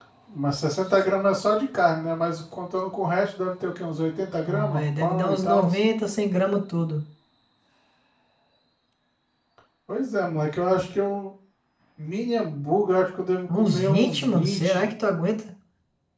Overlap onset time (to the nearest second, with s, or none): 4 s